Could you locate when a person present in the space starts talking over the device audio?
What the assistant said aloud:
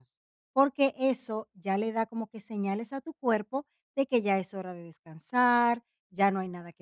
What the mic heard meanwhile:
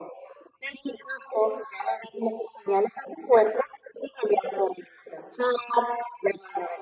none

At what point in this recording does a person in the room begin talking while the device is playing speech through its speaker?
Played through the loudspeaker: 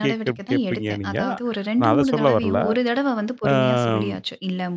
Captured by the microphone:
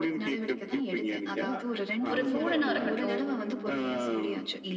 2.1 s

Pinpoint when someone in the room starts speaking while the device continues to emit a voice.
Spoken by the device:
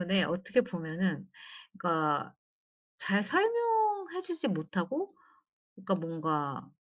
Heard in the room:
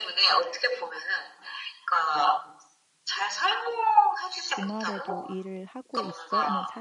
4.5 s

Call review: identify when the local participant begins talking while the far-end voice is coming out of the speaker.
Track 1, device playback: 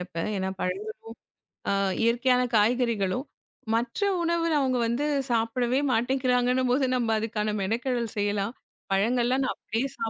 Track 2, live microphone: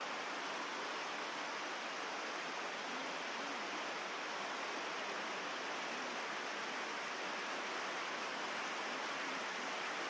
none

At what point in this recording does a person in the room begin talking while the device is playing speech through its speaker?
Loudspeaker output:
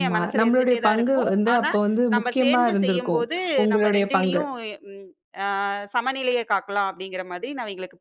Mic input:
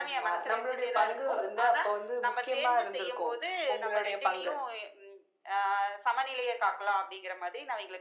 none

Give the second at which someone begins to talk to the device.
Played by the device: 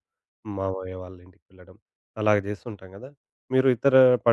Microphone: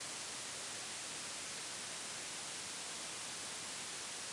none

